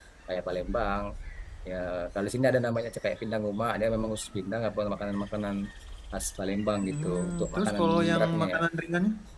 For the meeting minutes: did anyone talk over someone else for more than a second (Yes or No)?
Yes